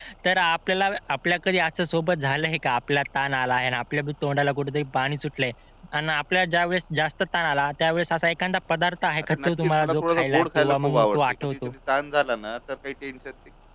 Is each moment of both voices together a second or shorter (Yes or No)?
No